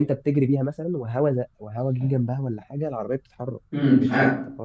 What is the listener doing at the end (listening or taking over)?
taking over